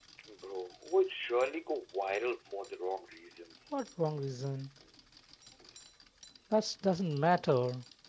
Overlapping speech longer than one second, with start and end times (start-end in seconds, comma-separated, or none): none